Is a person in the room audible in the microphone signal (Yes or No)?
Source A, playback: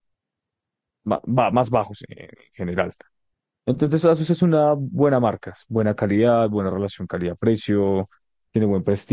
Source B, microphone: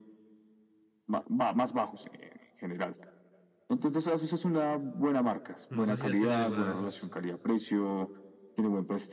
Yes